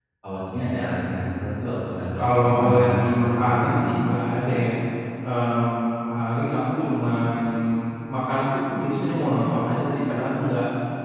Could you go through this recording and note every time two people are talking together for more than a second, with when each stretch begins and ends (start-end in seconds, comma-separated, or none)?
2.1-3.6